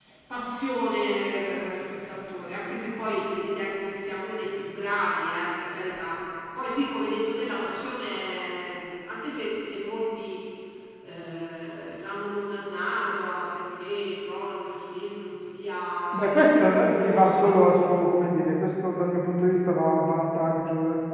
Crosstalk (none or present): present